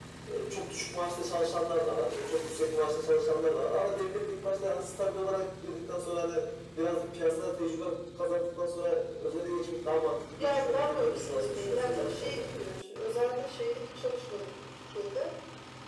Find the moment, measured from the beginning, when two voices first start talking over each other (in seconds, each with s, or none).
10.4 s